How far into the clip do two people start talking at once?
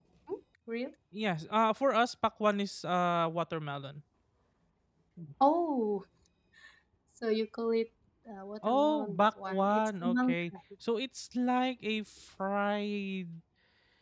8.7 s

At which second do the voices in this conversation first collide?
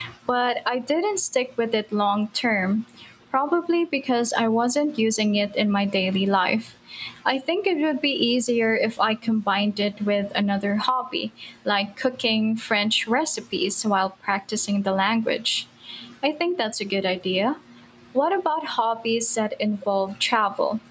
none

